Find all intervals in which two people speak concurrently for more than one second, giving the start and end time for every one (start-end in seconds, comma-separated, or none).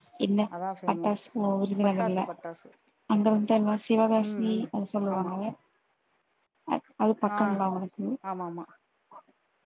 none